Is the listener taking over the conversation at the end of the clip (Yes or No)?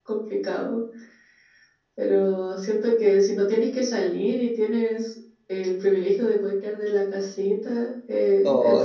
Yes